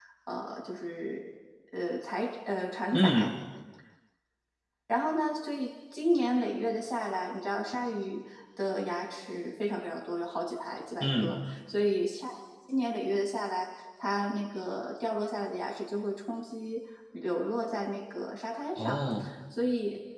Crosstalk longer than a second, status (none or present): none